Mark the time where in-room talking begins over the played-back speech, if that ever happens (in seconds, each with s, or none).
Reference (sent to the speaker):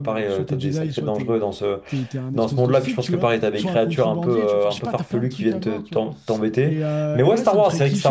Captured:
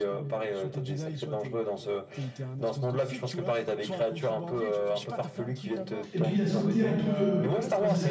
6.1 s